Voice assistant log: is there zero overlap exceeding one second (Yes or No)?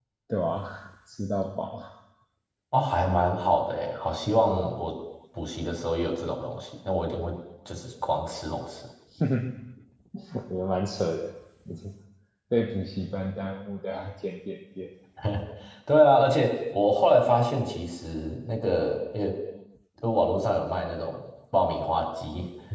Yes